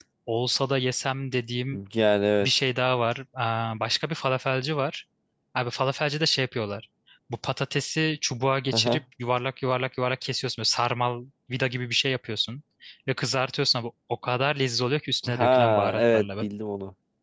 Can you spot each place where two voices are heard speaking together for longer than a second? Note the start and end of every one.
15.3-16.5

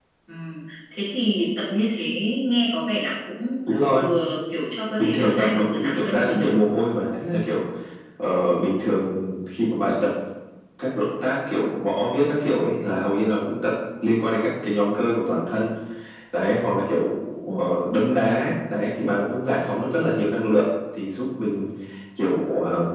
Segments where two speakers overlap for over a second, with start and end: 5.0-6.5

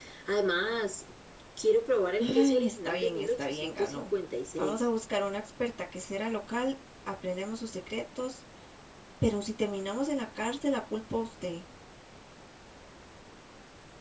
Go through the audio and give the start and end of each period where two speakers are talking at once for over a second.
2.2-4.1

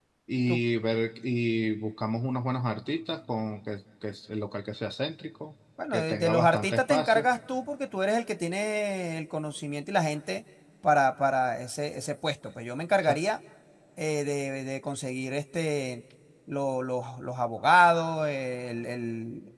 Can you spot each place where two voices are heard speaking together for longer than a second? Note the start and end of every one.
5.9-7.3

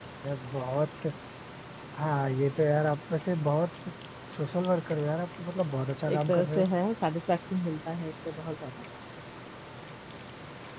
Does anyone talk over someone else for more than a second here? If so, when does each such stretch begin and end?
none

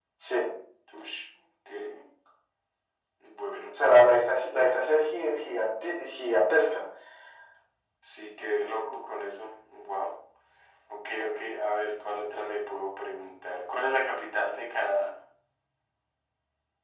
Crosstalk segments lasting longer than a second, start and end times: none

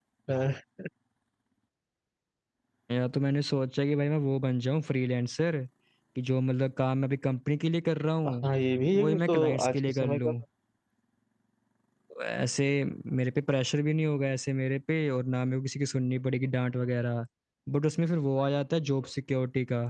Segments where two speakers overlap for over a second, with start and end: 8.9-10.3

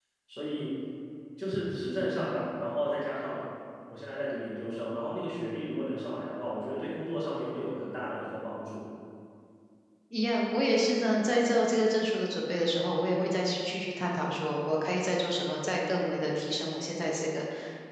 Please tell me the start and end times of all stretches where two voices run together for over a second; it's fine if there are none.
none

